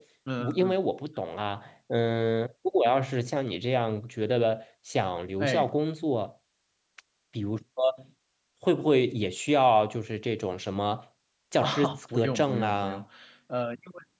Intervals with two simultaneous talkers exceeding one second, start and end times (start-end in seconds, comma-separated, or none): 11.6-13.0